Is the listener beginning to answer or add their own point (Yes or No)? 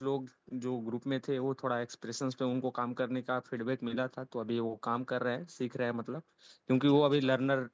No